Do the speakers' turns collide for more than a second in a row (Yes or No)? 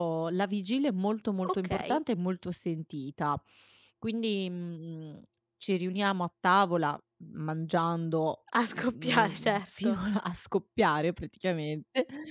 Yes